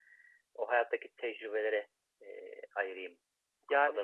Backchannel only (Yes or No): No